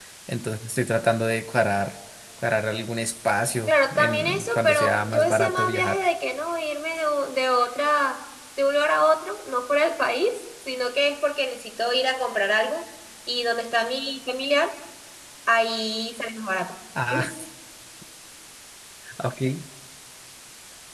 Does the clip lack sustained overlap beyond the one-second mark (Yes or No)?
No